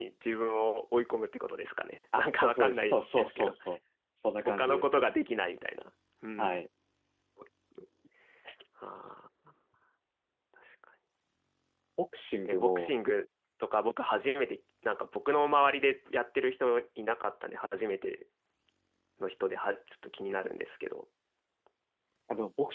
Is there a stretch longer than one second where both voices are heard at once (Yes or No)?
Yes